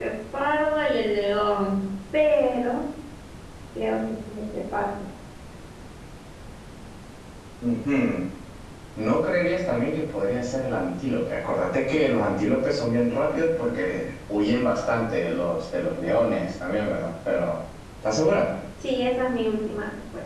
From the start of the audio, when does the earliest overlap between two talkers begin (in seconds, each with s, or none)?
none